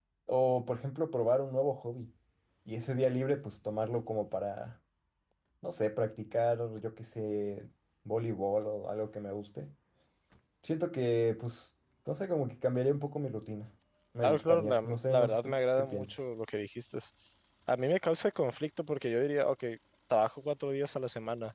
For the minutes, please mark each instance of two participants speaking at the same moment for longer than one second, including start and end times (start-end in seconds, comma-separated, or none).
14.2-16.2